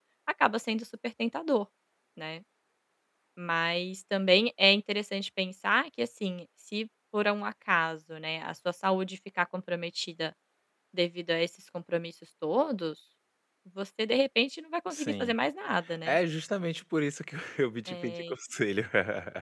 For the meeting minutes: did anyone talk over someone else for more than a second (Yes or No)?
No